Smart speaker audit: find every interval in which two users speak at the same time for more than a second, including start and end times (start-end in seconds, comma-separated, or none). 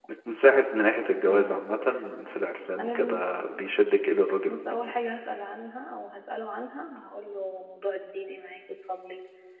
none